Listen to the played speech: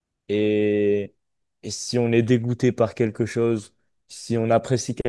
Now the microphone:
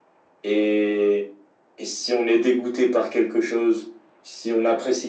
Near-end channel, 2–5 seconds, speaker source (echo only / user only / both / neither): echo only